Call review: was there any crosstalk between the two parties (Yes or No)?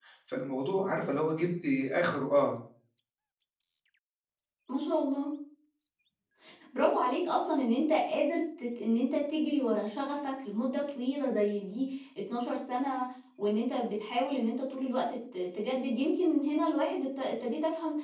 No